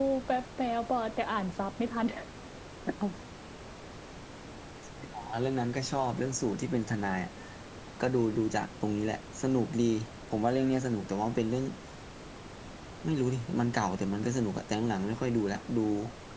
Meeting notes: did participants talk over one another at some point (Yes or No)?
No